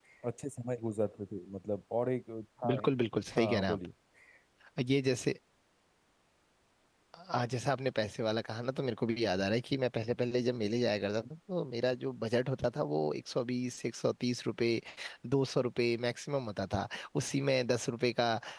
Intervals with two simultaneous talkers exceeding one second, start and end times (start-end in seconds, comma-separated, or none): none